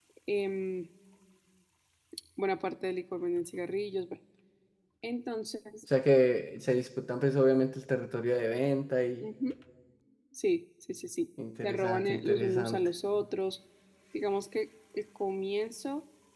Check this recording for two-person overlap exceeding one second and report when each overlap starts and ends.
11.6-12.9

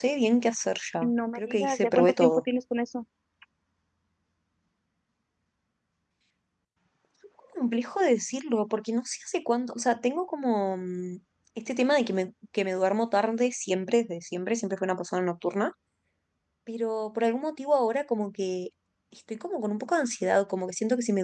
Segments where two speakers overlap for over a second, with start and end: 1.0-2.4

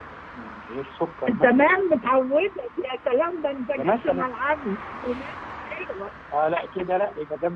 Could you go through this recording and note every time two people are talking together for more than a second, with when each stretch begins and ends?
none

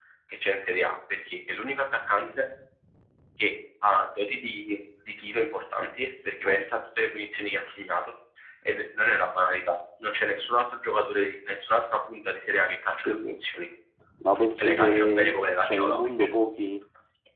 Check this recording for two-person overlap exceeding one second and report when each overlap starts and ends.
14.6-16.3

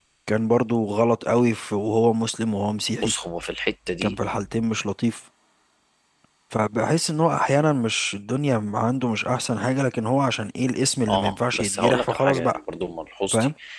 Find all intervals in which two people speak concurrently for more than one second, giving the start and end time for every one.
11.1-12.6

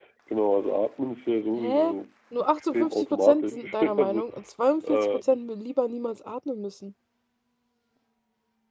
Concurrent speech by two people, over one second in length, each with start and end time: 2.6-4.2

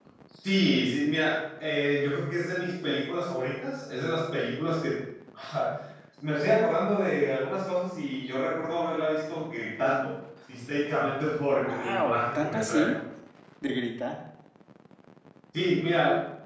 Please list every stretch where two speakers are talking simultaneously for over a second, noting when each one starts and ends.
11.6-13.0

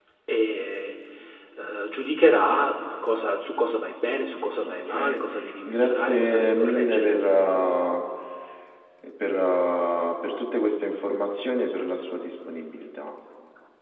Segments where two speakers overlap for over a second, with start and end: 5.7-7.2

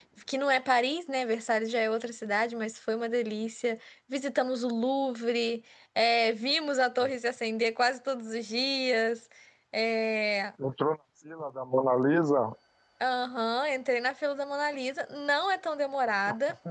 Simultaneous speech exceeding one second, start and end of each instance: none

